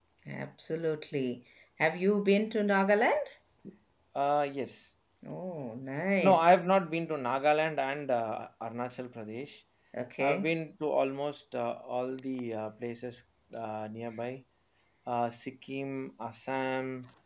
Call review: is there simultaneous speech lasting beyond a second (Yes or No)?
No